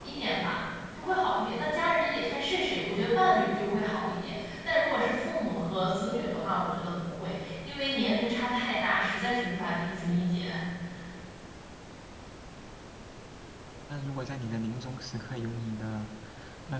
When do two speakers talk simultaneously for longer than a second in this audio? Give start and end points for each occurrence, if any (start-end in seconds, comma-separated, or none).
none